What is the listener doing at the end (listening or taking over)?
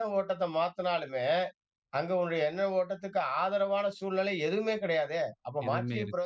listening